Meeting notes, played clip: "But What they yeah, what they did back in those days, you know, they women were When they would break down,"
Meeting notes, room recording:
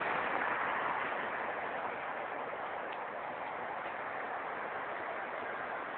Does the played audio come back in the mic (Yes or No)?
No